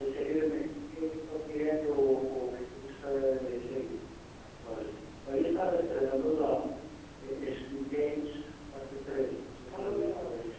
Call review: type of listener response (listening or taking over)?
taking over